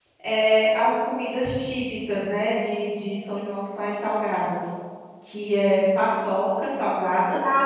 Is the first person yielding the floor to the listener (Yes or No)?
Yes